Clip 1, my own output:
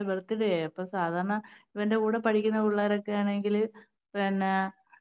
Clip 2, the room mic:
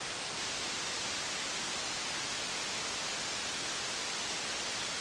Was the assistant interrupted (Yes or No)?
No